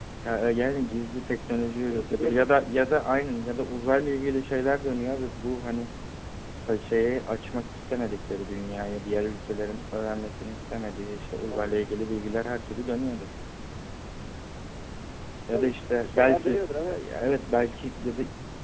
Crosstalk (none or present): present